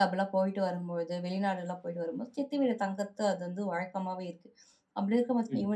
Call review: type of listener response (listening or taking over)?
listening